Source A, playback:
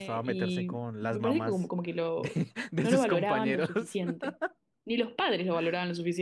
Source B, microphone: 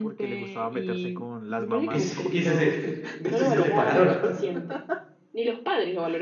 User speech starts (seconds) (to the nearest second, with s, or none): 2 s